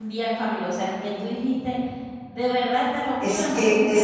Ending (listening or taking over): taking over